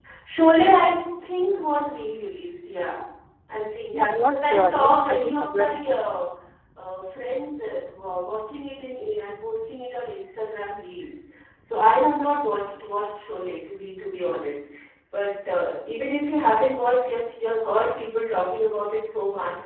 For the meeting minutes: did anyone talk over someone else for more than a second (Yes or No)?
Yes